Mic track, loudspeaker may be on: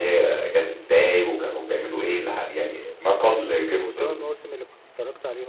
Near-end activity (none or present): present